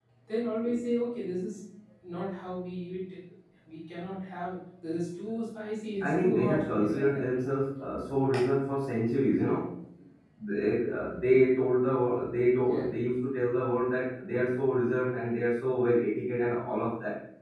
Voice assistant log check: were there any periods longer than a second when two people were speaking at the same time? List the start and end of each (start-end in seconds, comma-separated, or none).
6.0-7.2